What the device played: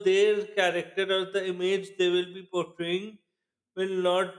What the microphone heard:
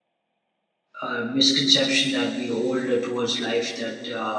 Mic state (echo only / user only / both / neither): user only